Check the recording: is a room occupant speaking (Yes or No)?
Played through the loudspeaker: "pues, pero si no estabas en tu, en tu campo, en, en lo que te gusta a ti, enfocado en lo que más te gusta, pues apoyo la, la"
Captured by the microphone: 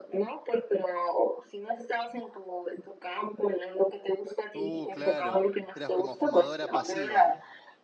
Yes